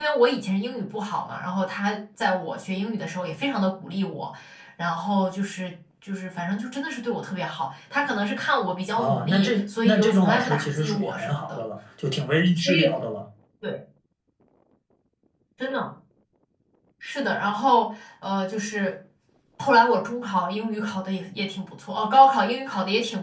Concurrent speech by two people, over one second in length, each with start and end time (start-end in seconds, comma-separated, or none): 9.0-11.6